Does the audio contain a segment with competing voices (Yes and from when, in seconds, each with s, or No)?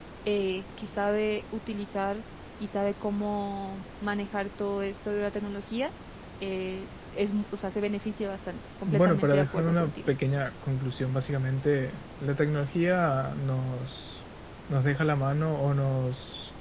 Yes, from 8.9 s